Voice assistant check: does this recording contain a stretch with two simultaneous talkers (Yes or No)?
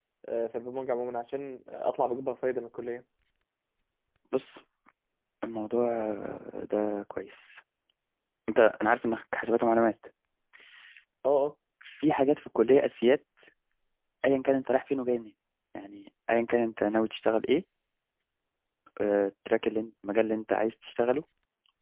No